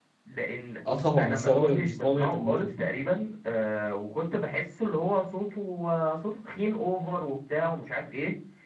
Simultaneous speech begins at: 1.2 s

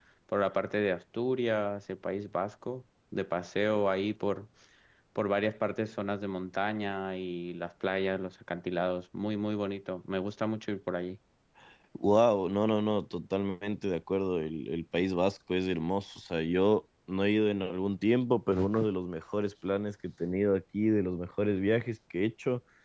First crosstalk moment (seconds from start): none

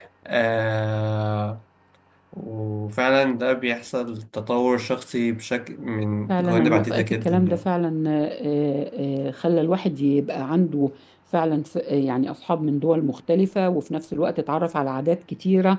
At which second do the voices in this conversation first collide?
6.3 s

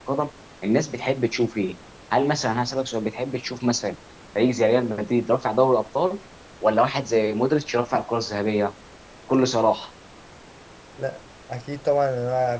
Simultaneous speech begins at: none

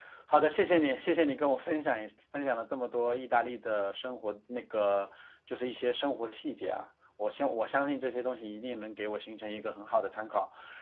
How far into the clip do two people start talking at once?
none

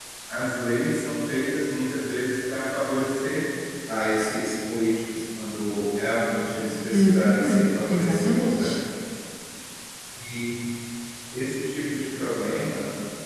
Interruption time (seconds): 6.9 s

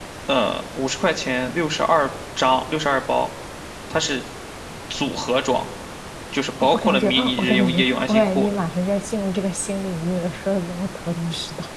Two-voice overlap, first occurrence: 6.7 s

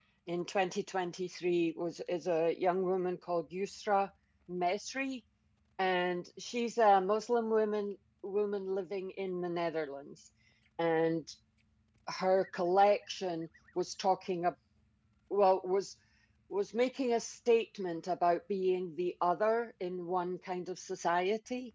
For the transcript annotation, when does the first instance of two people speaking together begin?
none

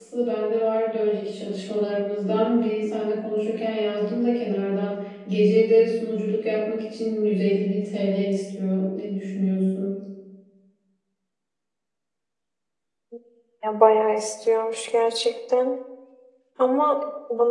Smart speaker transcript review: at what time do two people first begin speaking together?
none

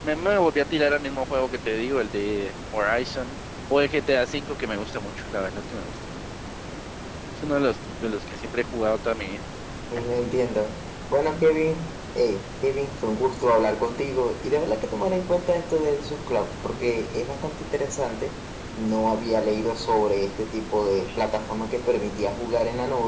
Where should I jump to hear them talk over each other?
none

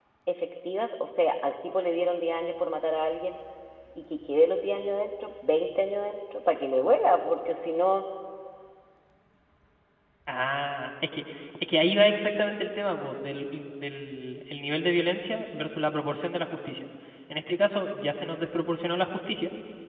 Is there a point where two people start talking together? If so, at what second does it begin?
none

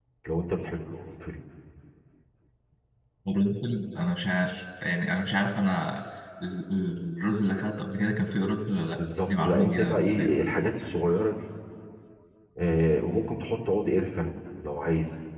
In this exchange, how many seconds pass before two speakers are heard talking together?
8.9 s

